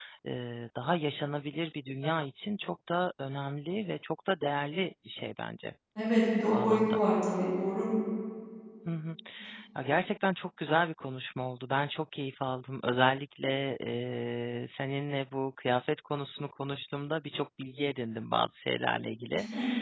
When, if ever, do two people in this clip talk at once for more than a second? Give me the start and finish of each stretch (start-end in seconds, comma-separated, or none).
none